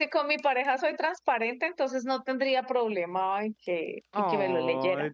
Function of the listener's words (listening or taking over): taking over